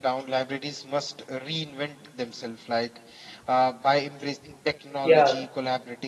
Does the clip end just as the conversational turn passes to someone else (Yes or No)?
No